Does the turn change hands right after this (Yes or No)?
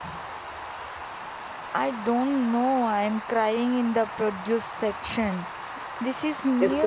Yes